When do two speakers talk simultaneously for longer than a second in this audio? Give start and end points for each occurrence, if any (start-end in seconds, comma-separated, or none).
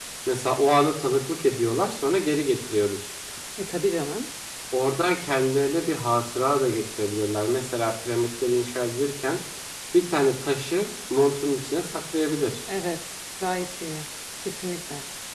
none